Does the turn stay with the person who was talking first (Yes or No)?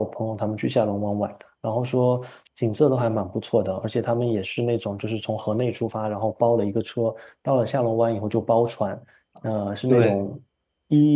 Yes